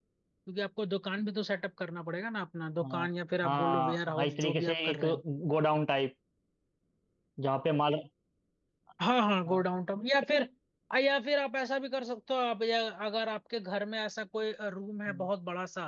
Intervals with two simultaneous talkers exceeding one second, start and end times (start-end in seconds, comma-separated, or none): 3.4-5.0